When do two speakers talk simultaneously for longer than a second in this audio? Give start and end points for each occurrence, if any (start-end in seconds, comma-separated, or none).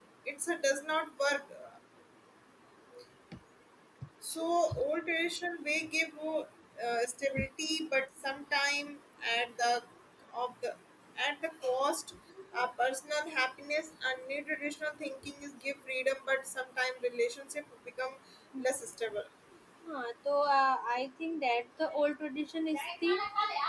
none